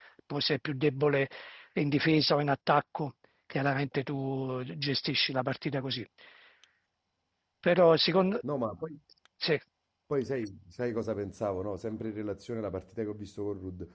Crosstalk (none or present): none